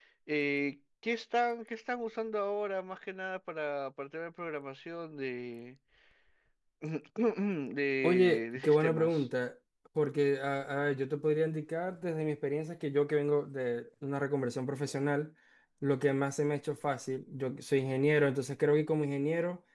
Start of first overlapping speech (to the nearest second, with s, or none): 8 s